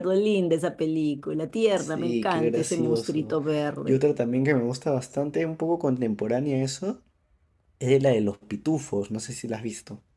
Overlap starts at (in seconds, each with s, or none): 1.8 s